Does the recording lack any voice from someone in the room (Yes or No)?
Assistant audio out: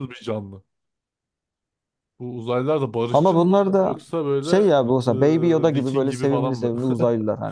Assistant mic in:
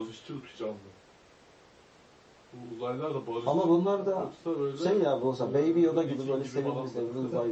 Yes